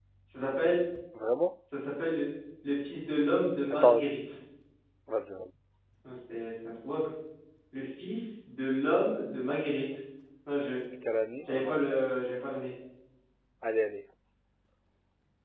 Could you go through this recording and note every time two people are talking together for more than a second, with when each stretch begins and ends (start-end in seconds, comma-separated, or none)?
none